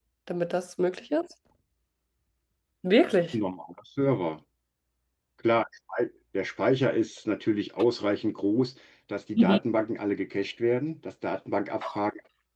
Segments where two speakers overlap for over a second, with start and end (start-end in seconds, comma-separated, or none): none